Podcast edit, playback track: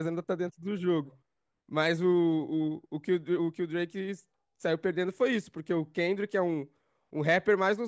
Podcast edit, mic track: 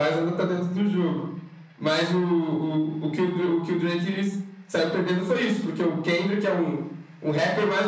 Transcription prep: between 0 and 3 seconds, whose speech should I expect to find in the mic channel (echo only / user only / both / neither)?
echo only